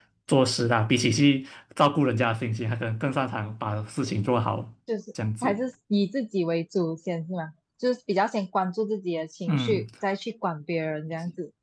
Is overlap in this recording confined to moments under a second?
Yes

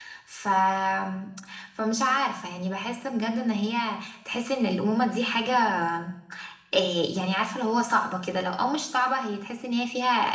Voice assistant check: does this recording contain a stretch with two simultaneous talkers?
No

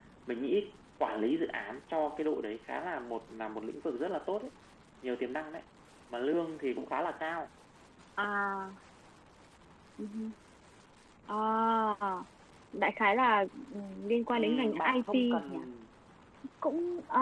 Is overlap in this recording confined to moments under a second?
No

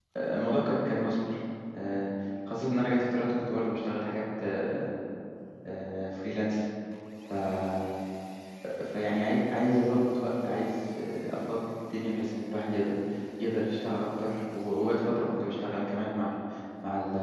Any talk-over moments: No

